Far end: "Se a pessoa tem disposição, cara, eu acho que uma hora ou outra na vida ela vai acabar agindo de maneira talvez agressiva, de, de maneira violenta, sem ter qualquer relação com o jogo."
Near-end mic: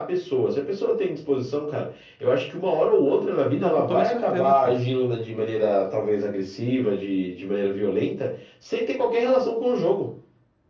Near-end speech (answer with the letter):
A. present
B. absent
A